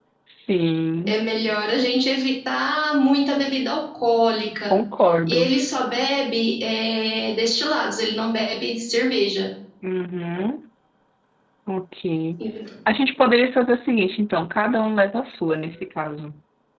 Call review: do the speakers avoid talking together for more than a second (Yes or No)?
Yes